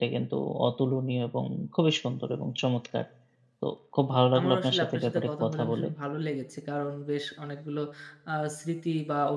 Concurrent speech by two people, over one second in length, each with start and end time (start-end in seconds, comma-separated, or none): 4.4-5.9